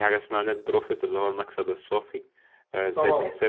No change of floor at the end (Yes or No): Yes